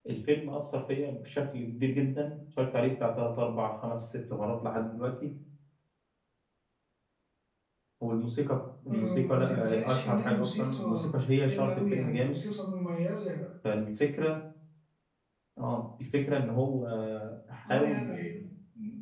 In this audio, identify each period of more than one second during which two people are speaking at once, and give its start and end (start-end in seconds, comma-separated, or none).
8.9-12.4